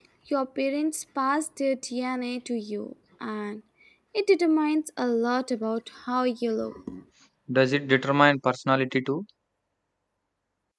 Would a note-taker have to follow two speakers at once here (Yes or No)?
No